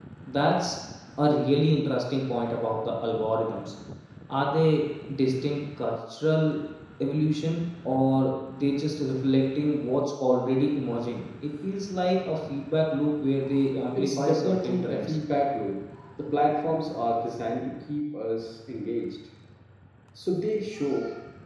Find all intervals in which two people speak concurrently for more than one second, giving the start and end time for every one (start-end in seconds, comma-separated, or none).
13.9-15.2